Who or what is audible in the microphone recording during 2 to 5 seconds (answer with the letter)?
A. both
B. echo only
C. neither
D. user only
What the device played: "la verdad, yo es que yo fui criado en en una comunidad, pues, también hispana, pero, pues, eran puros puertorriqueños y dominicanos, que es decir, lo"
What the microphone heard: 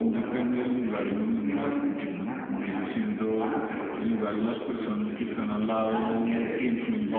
A